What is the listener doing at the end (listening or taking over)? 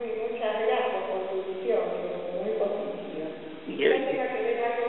listening